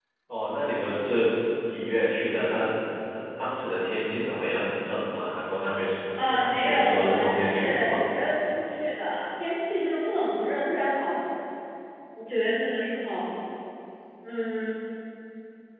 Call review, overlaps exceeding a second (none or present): present